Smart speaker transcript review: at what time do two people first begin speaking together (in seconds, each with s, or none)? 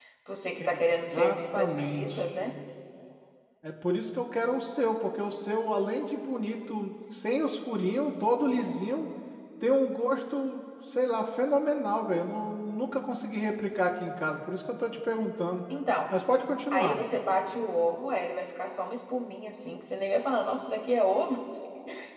0.6 s